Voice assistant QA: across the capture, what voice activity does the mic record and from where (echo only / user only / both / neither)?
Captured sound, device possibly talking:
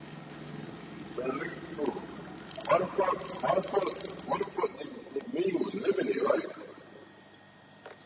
echo only